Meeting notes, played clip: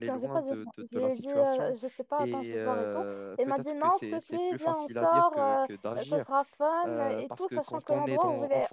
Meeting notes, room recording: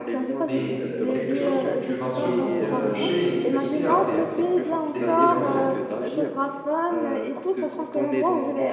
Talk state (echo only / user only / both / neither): both